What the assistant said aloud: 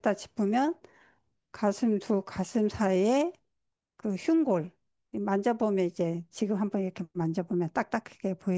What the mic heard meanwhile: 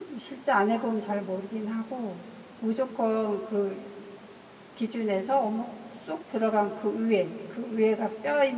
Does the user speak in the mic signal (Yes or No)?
Yes